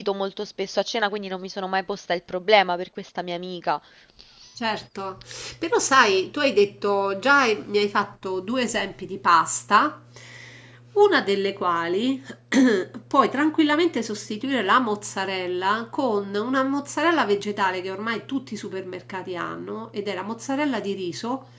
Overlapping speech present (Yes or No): No